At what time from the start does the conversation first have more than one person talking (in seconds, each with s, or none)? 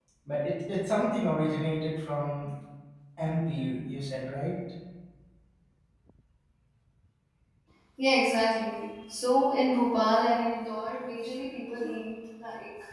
none